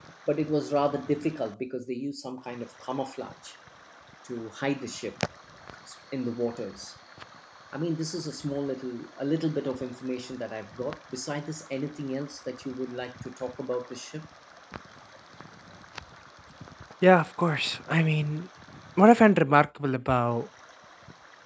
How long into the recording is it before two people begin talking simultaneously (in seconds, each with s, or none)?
none